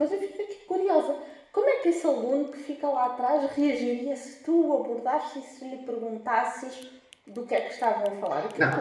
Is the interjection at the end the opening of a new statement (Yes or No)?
Yes